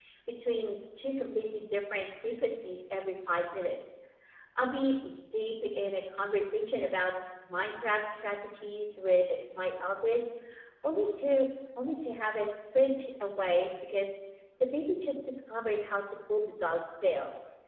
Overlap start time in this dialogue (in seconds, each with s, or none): none